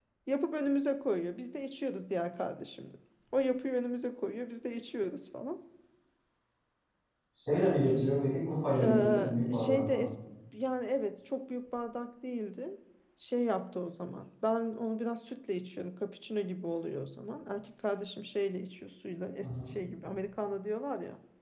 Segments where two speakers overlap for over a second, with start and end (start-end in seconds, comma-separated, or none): 8.8-10.0